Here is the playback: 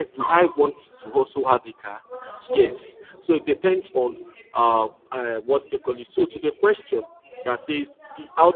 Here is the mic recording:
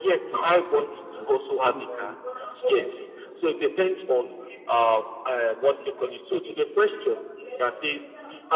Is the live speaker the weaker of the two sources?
Yes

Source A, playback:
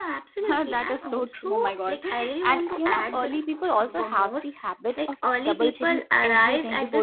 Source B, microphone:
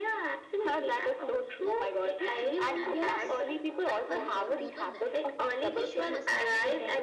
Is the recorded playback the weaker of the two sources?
No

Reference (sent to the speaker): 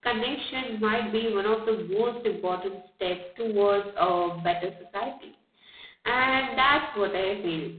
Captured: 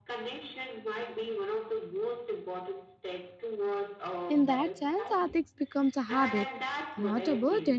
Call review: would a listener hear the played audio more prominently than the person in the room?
No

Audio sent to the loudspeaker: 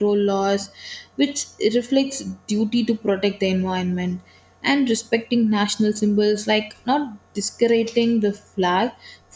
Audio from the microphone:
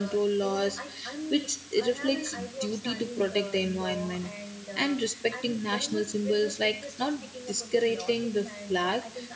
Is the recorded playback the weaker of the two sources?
No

